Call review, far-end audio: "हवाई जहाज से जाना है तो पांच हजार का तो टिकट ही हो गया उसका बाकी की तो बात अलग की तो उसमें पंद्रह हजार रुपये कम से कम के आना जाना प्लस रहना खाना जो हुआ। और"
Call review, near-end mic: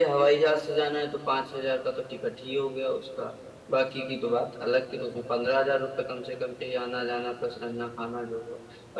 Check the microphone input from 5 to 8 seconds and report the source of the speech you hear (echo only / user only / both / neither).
echo only